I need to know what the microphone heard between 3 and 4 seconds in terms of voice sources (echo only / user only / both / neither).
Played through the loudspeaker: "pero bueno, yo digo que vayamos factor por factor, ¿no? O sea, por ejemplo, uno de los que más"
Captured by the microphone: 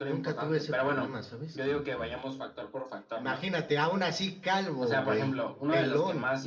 both